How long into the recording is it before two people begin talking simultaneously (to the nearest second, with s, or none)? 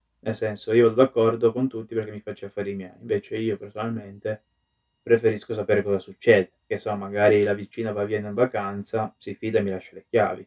none